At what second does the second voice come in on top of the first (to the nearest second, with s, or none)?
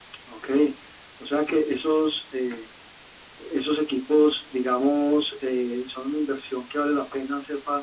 none